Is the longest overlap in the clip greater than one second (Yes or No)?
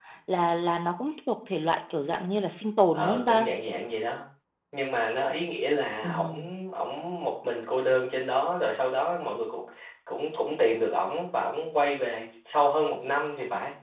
No